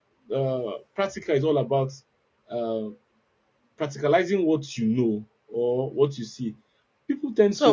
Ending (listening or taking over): listening